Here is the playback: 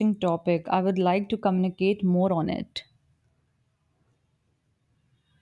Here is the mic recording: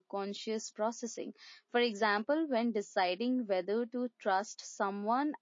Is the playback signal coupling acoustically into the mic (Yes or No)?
No